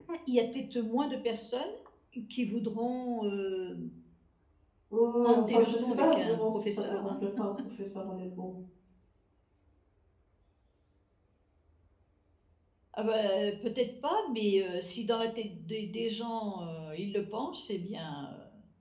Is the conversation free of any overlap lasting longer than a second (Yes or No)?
No